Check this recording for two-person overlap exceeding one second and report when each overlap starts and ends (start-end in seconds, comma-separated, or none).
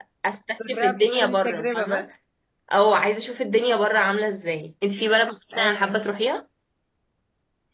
0.7-2.1